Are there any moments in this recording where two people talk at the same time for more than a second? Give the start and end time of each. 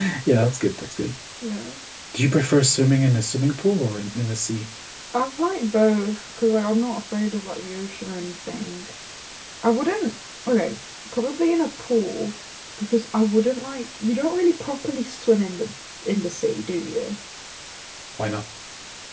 none

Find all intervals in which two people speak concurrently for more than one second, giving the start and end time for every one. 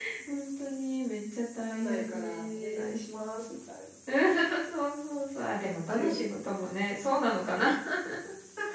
1.7-3.0

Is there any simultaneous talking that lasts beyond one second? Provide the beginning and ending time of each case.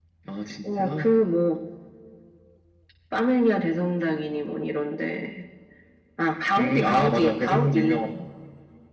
6.6-8.1

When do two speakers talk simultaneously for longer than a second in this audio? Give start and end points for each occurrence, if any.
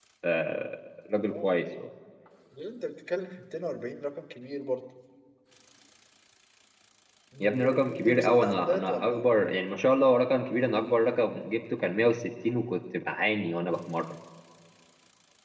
7.4-9.2

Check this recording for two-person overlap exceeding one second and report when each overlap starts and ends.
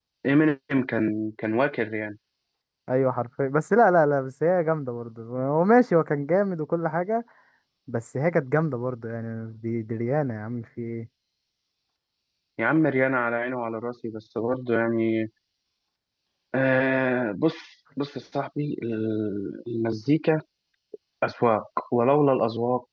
none

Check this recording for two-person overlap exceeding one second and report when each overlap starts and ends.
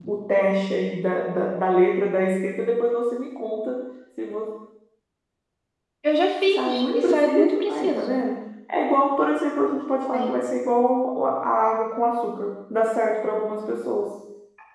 6.5-8.2

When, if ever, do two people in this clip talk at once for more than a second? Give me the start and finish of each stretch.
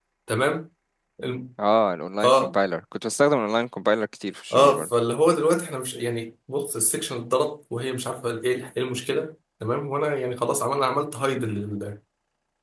none

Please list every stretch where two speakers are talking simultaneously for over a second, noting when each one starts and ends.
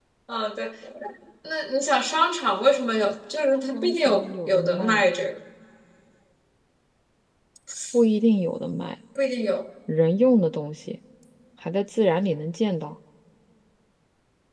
3.7-5.0

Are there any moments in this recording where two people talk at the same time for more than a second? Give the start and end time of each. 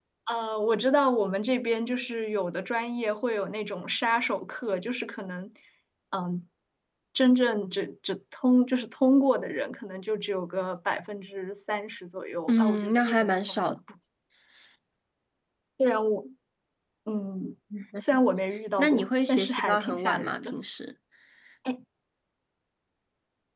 12.5-13.8, 18.8-20.5

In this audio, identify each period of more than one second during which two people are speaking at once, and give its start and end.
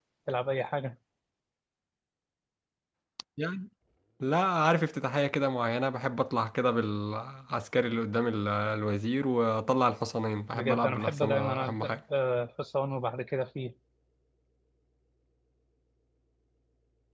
10.5-11.9

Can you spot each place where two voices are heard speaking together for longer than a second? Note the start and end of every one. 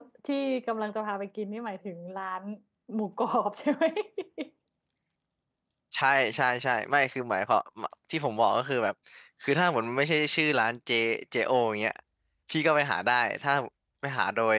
none

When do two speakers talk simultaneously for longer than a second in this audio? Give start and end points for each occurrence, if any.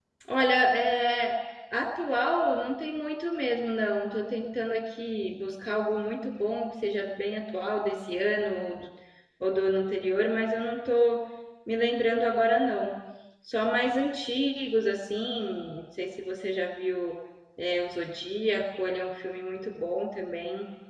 none

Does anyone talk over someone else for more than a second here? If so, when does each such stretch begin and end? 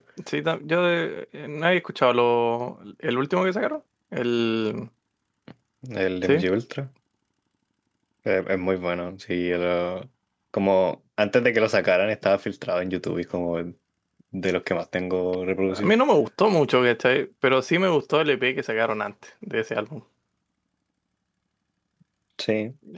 none

